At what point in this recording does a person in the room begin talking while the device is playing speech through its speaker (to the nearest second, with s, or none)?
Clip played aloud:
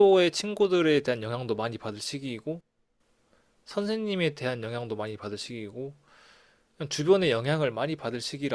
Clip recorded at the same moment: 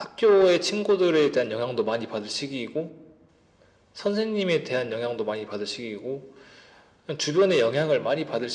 none